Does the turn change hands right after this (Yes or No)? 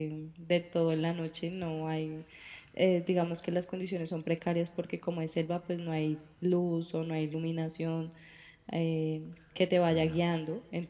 No